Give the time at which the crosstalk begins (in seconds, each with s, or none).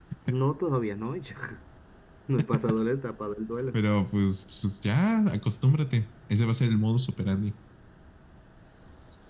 none